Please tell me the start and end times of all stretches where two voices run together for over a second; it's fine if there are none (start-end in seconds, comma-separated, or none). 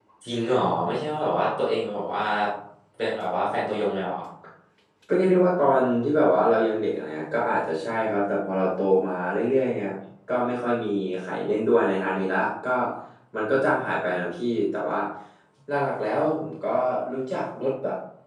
none